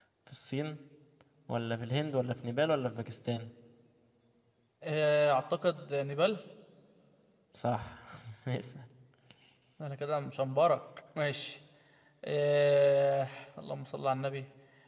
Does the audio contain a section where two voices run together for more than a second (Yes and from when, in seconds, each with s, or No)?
No